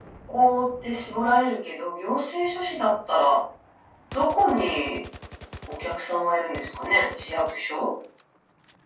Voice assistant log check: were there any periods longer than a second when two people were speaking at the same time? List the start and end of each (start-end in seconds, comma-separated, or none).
none